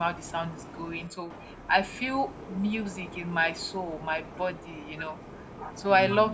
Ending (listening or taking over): listening